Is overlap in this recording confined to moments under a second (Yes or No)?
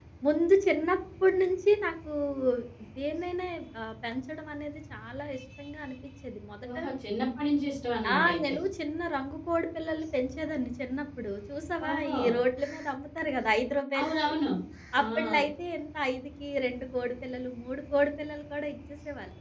Yes